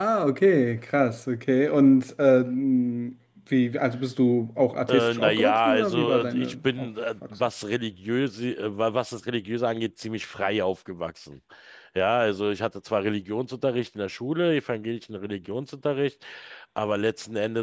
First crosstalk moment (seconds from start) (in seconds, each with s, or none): 4.9 s